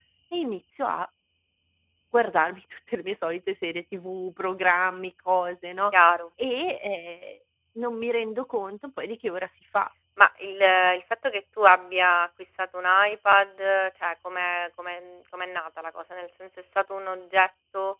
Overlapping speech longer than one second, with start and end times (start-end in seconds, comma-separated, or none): none